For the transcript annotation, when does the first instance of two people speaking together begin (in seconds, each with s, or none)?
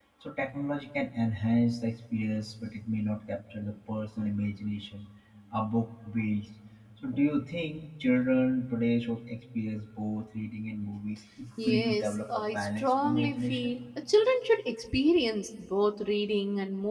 11.6 s